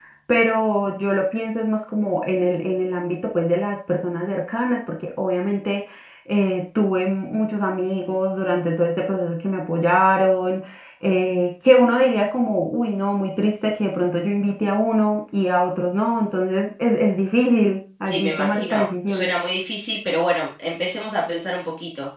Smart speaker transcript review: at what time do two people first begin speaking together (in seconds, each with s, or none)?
18.0 s